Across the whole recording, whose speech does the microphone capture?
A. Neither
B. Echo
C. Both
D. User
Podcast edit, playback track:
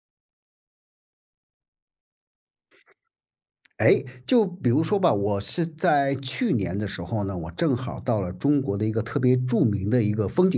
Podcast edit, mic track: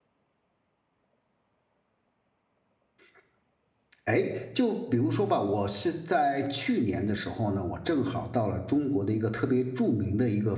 B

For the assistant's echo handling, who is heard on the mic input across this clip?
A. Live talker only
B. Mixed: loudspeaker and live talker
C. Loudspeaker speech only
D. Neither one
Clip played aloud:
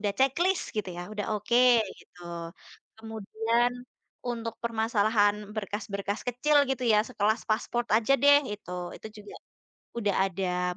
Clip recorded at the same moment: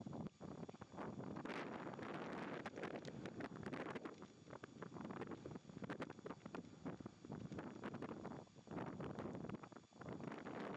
D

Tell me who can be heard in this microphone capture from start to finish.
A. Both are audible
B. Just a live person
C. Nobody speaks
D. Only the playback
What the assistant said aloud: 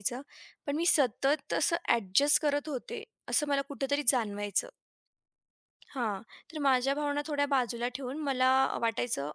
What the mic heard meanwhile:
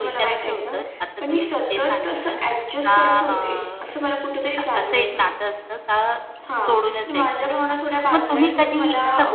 A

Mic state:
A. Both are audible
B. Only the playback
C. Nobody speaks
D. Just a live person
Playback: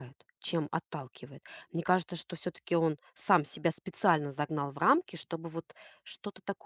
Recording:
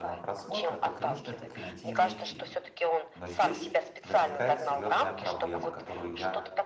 A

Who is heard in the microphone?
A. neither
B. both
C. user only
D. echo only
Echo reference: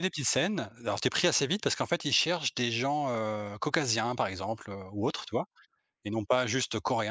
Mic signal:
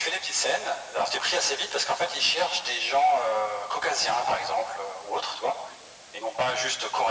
D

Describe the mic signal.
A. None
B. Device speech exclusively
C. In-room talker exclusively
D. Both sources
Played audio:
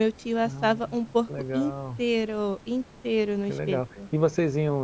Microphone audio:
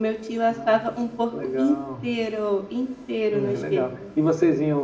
D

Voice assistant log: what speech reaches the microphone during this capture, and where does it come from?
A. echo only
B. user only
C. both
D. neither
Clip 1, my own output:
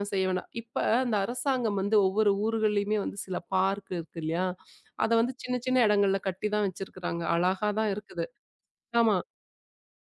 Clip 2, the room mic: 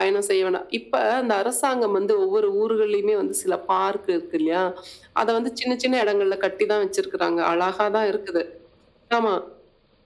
A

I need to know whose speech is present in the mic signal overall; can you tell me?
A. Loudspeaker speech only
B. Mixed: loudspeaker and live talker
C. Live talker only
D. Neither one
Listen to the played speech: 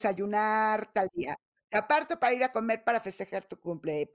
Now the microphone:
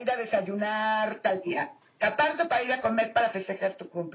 A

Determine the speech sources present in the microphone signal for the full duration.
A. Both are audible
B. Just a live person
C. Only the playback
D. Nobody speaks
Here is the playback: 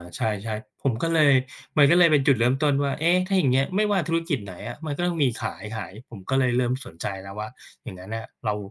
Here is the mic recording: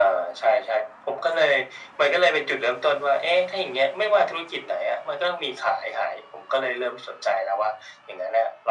C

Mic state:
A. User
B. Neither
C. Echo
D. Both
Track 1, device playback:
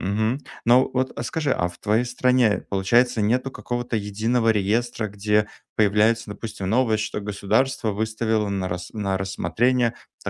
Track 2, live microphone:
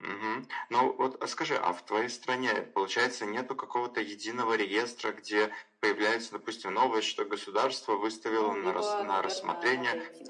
D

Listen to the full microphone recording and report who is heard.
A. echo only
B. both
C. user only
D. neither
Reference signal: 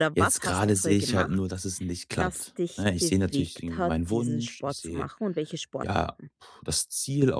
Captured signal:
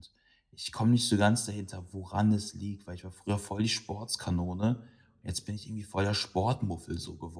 C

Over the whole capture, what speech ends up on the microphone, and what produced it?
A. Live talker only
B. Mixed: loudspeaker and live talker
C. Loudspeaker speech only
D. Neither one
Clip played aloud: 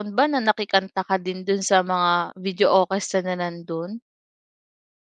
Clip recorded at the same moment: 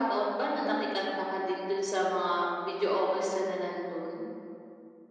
C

